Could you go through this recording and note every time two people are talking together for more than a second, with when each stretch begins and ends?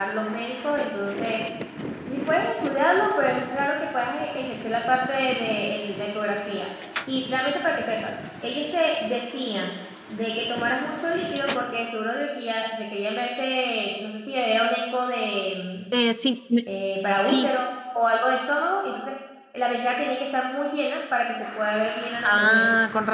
none

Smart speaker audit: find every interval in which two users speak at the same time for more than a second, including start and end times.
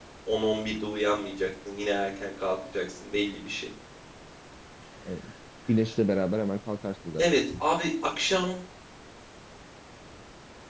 none

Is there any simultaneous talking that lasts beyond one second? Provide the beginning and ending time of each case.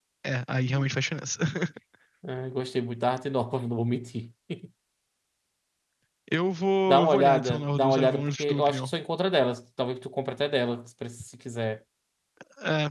6.9-8.9

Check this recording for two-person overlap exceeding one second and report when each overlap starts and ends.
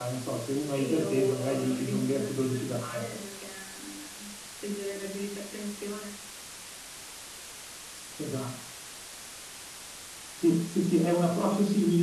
0.6-3.0

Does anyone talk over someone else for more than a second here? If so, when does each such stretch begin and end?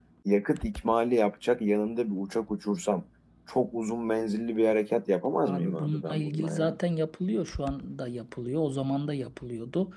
5.4-6.8

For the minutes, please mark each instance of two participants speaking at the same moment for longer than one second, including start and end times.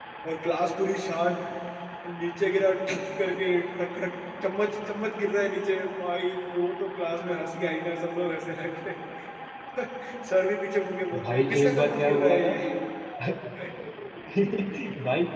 11.2-12.5

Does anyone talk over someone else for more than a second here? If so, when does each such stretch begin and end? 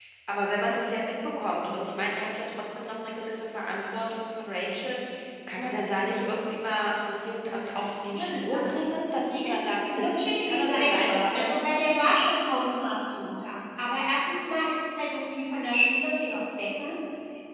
8.1-11.5

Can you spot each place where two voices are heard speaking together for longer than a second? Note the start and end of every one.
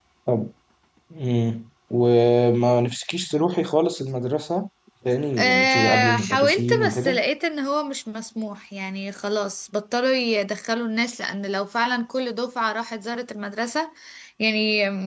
5.4-7.2

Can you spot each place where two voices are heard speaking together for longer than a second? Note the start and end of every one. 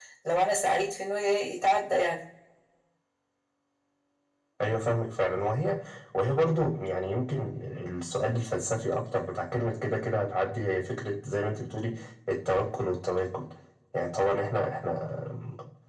none

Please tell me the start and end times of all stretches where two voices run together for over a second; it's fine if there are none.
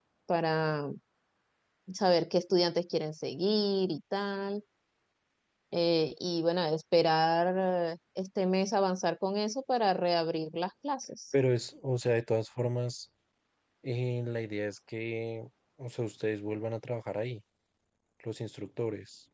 none

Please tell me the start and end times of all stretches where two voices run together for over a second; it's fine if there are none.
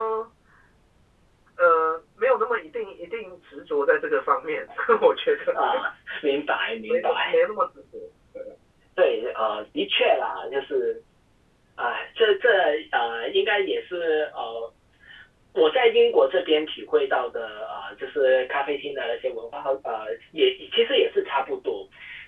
none

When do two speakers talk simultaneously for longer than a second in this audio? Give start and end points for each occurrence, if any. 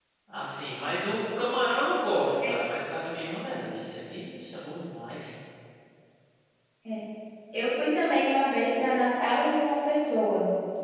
none

